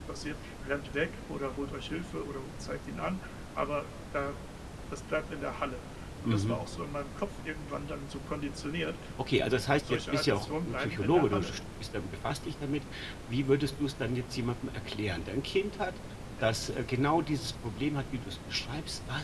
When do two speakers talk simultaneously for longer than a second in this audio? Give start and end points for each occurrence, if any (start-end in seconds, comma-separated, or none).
9.9-11.6